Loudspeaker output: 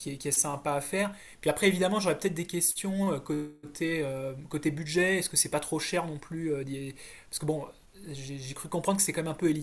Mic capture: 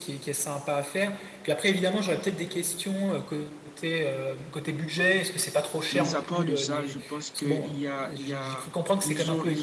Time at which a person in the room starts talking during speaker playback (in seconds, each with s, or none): 5.9 s